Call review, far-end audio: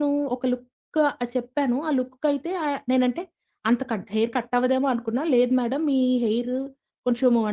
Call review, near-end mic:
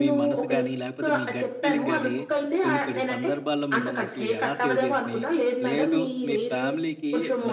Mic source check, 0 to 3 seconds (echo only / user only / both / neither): both